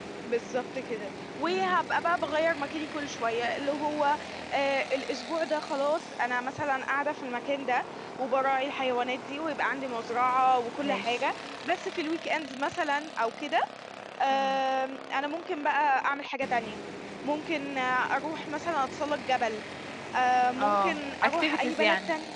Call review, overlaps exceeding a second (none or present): present